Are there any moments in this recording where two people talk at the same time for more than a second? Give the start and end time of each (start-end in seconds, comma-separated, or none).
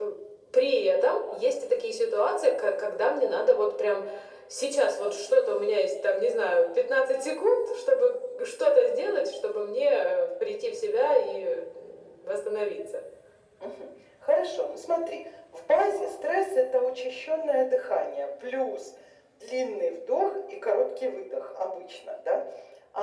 none